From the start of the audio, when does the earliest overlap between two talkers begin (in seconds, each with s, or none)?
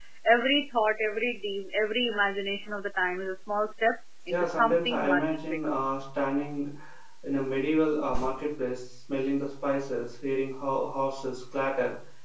4.3 s